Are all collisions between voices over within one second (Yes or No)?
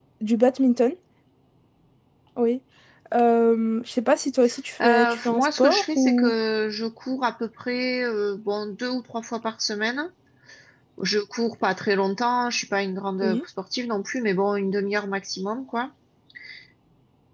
No